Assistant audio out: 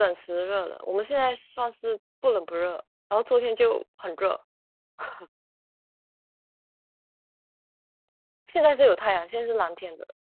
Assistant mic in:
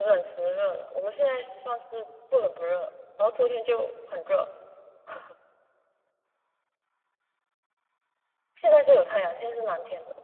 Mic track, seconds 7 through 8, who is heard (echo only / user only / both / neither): neither